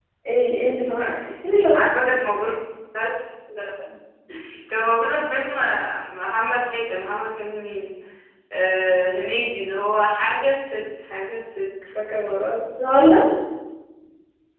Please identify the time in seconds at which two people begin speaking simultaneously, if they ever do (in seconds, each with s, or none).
none